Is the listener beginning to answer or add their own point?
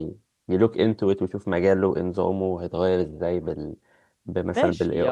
Yes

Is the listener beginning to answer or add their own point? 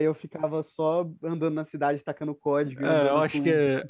Yes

